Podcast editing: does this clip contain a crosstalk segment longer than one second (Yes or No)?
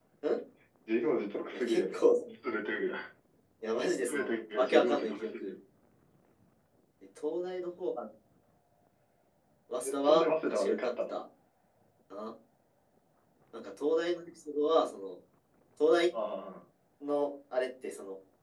Yes